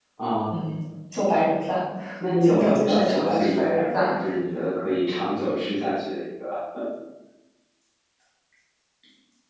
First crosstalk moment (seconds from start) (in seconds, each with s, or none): 2.4 s